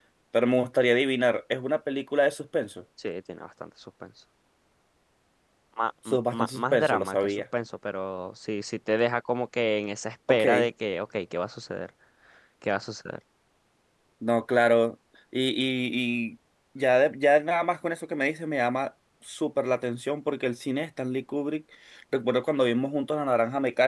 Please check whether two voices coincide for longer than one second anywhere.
Yes, from 6.1 s

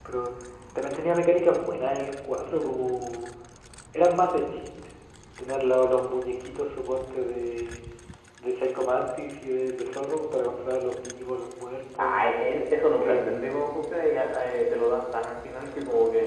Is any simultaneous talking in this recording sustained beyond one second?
No

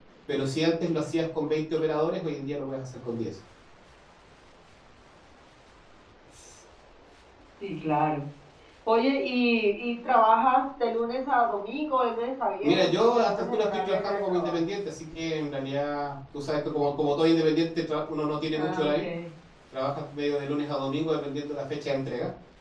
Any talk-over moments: Yes, from 12.6 s

